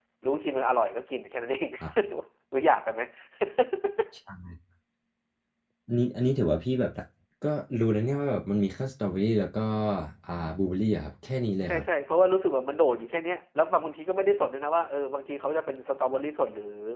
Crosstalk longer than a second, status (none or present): none